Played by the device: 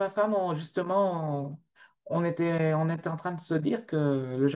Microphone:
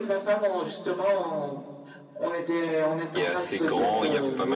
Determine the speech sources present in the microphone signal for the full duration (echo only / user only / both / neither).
both